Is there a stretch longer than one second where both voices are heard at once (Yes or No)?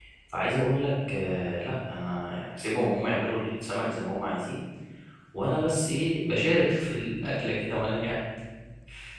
No